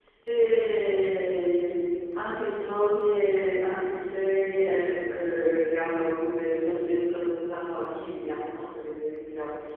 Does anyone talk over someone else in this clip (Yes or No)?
No